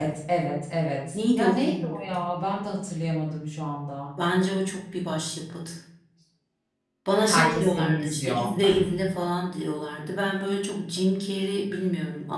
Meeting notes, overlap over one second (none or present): present